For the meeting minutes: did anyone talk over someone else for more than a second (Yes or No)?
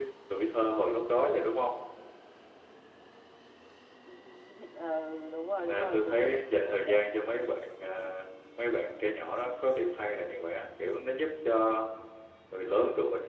Yes